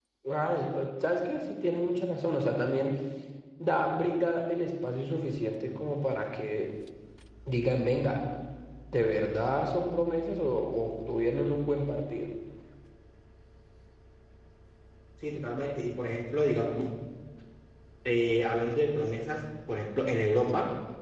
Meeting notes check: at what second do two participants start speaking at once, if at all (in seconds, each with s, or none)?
none